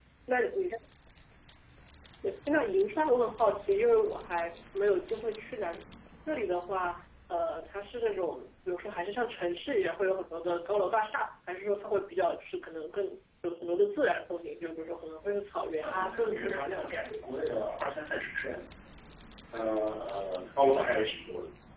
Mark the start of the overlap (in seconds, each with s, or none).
15.8 s